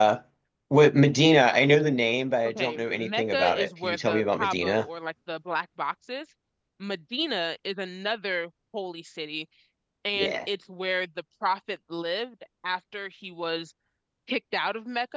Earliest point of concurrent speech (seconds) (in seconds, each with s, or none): 2.5 s